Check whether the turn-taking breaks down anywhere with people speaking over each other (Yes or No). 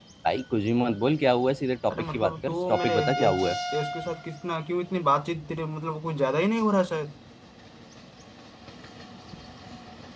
Yes